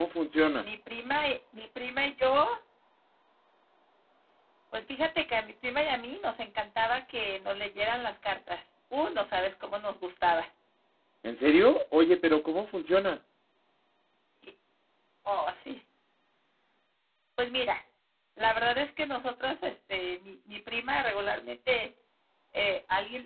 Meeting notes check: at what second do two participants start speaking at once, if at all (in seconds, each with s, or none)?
none